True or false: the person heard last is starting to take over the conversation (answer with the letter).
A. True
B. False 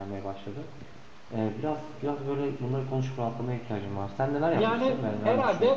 A